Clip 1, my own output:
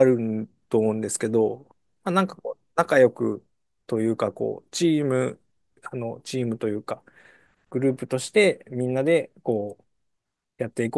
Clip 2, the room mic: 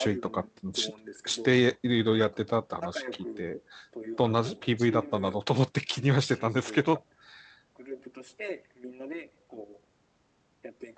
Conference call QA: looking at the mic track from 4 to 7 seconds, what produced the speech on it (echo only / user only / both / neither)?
both